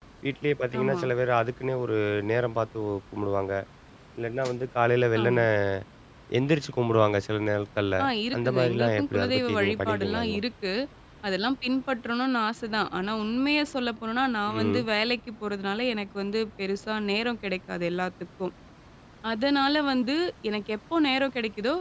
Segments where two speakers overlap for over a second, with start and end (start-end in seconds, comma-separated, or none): 8.4-10.4